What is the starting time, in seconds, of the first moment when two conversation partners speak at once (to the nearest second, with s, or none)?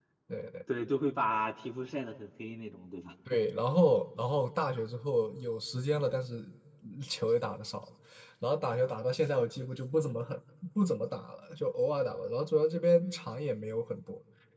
none